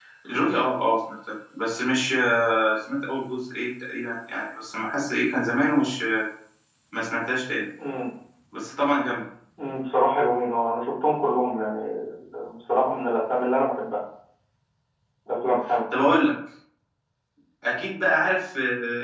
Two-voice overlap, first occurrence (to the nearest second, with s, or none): none